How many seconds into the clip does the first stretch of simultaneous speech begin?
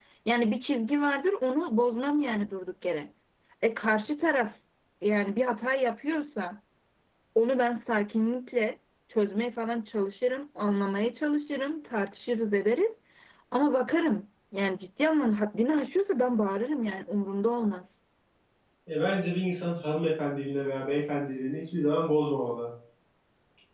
none

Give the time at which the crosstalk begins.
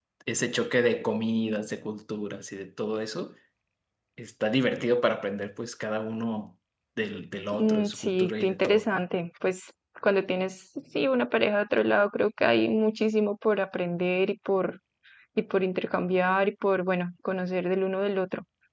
7.5 s

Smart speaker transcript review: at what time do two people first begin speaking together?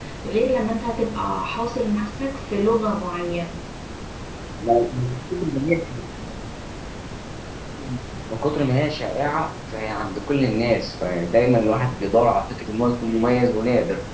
none

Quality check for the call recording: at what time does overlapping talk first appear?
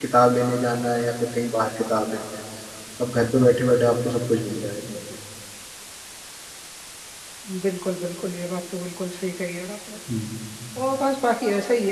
none

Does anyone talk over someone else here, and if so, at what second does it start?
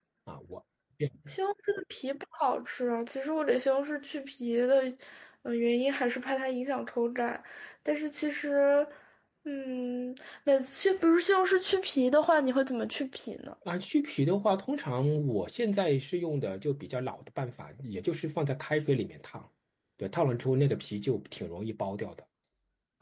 none

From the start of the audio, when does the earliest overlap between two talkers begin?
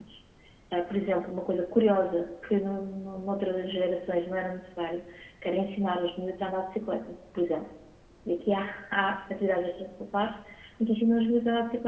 none

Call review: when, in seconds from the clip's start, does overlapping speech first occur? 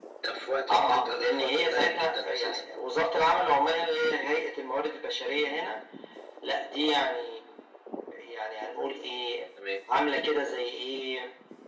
0.7 s

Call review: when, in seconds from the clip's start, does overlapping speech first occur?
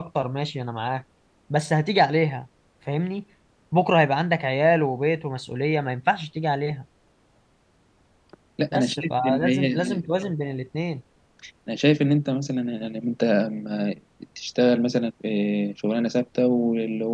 8.7 s

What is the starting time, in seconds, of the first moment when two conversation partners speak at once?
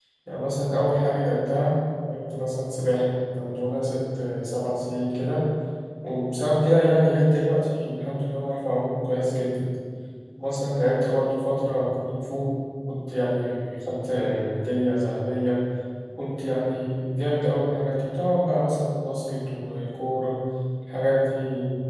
none

